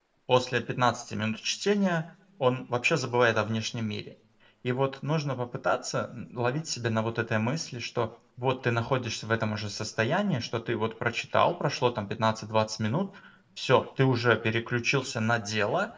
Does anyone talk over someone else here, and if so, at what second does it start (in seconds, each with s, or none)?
none